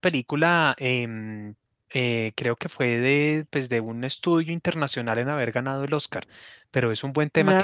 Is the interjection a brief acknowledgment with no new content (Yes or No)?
Yes